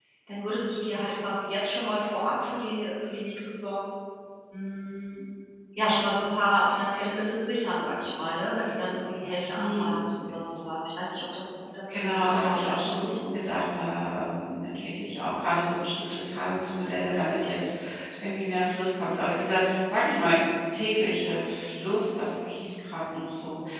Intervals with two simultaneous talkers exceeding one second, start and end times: 11.9-13.2

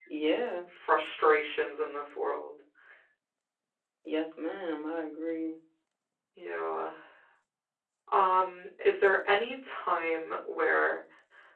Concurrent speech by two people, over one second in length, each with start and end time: none

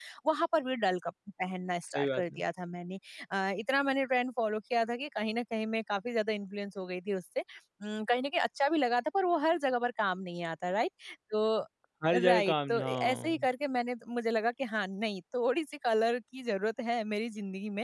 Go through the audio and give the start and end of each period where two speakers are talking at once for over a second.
12.2-13.5

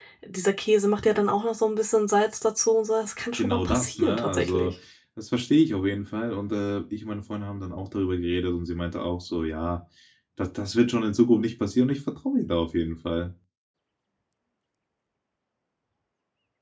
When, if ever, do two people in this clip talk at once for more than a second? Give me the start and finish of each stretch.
3.4-4.7

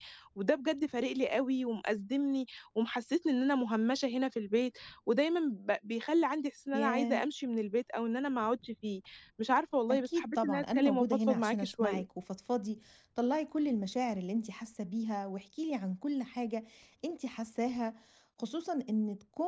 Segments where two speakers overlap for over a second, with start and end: 9.9-12.0

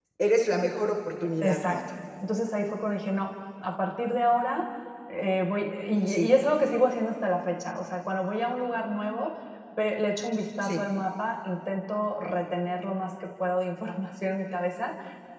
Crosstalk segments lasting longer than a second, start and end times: none

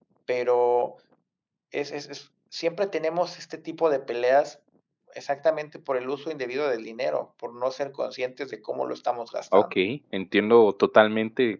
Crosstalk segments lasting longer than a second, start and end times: none

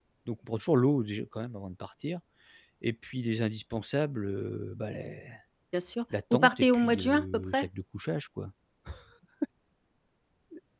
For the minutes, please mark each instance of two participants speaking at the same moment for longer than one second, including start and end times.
6.3-7.7

